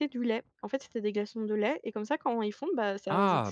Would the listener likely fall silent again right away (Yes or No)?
No